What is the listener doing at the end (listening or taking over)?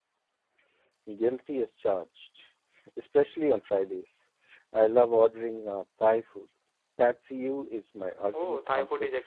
taking over